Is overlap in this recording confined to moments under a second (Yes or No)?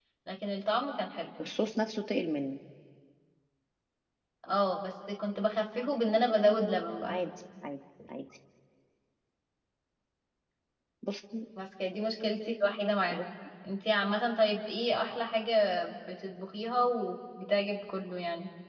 Yes